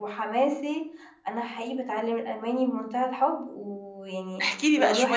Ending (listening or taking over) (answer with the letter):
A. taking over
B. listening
A